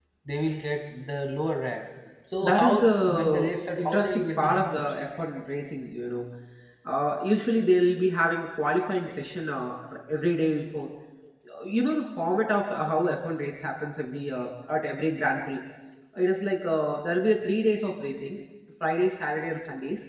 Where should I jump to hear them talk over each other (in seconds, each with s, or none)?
2.4 s